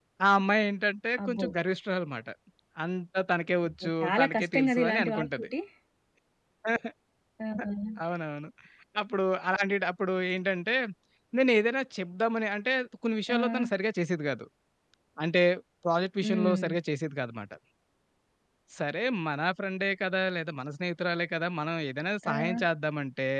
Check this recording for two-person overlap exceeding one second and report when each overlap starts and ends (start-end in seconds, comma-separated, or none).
3.7-5.3